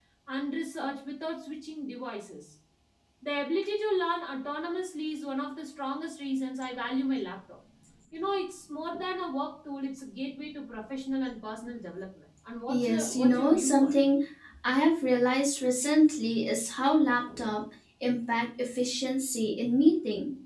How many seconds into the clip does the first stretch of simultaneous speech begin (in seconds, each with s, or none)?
12.7 s